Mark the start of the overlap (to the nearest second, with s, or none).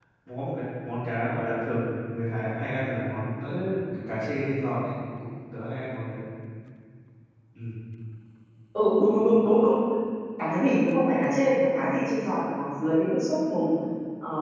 none